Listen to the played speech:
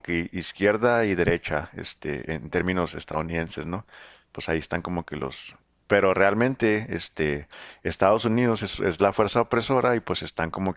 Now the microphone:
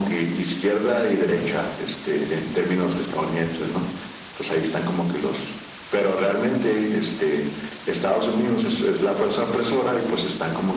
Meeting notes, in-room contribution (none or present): none